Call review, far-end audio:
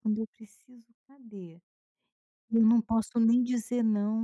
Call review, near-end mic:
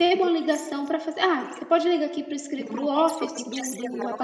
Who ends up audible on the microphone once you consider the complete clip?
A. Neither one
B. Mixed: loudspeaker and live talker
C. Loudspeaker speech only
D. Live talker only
B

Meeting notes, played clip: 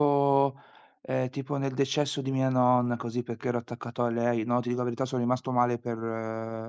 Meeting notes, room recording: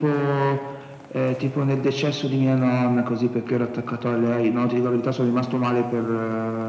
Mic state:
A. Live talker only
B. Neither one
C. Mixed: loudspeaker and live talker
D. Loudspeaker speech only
D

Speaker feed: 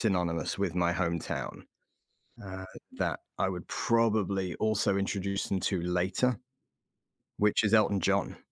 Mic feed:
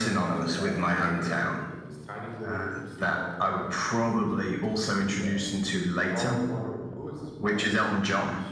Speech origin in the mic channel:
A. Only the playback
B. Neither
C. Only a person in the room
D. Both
D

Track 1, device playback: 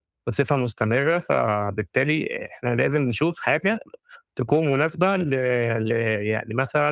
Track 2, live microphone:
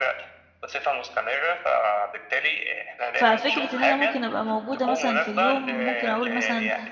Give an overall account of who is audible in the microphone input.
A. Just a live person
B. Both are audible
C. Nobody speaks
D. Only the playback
B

